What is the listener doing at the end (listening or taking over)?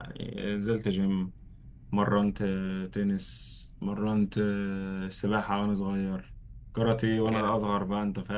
listening